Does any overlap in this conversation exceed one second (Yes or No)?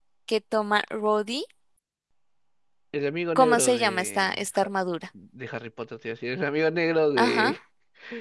Yes